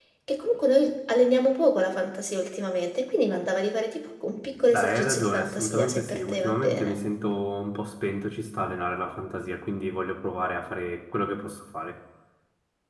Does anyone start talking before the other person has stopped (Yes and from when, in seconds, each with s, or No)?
Yes, from 4.7 s